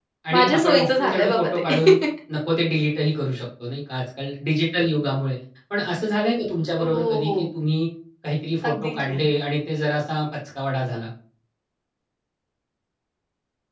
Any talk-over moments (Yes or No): Yes